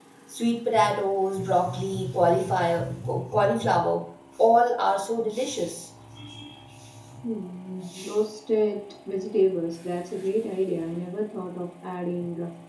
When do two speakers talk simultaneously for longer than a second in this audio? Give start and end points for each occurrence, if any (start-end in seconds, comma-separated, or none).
none